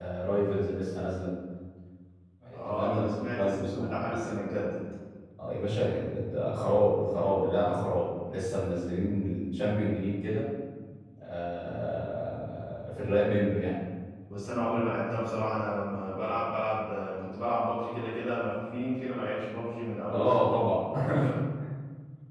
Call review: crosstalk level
present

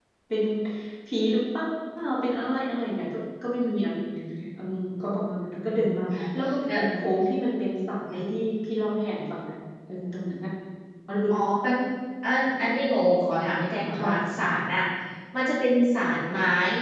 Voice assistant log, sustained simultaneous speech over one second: none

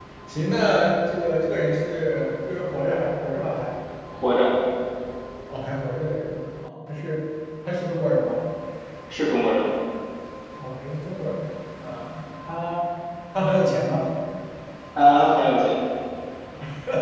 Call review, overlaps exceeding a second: none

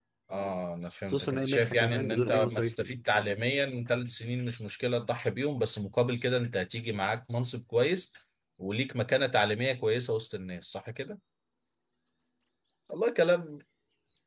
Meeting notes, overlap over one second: present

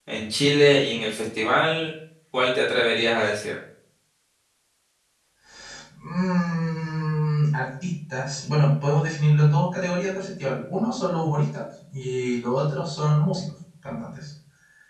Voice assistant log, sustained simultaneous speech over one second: none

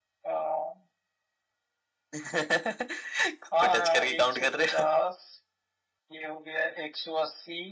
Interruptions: present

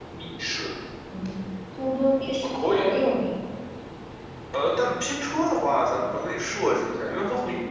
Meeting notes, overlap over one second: none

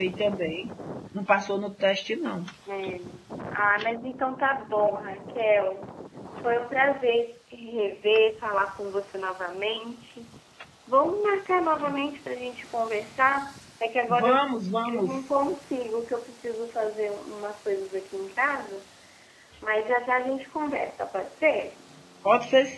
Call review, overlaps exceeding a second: none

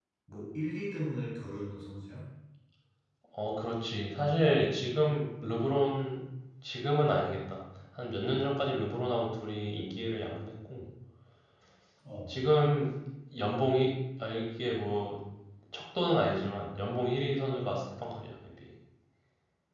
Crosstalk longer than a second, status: none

